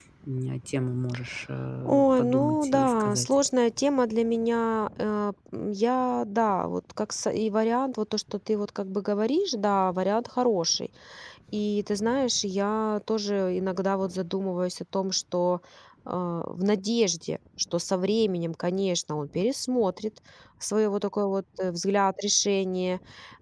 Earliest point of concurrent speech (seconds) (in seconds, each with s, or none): 1.9 s